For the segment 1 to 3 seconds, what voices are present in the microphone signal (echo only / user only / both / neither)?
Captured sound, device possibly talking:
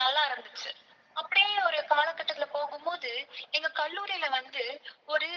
echo only